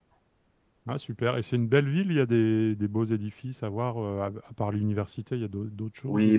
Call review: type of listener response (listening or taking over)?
taking over